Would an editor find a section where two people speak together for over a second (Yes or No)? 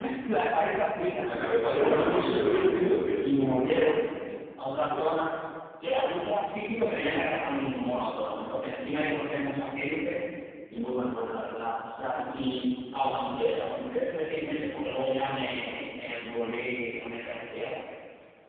Yes